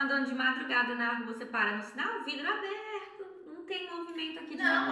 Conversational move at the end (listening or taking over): taking over